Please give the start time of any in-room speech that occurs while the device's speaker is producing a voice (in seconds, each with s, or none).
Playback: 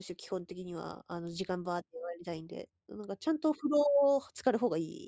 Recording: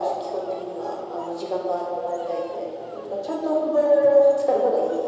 none